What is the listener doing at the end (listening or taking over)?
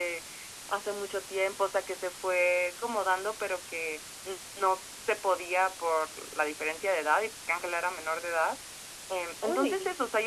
listening